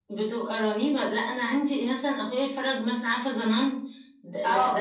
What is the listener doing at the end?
taking over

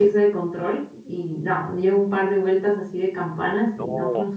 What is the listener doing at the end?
listening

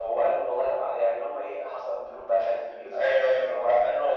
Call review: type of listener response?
taking over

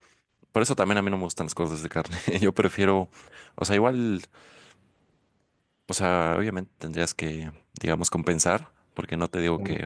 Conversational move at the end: listening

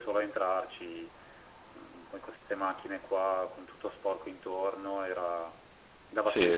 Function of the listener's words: taking over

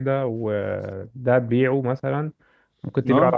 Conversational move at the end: listening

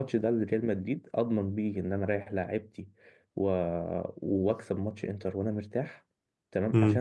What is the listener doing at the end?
listening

